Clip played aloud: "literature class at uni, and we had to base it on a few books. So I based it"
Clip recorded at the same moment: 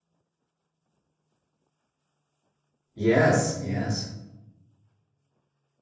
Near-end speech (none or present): present